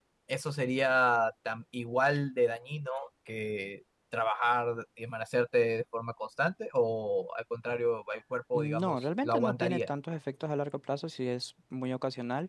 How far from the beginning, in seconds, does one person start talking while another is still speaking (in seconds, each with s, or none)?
8.5 s